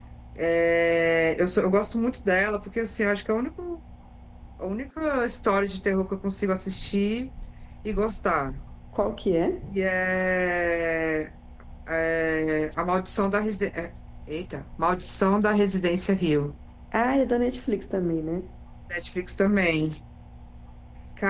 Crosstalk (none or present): none